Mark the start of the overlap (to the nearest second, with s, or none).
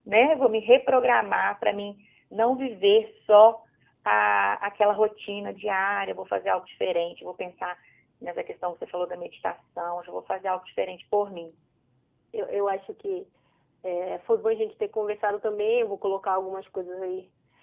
none